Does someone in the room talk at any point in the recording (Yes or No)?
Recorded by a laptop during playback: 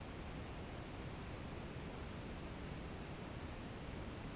No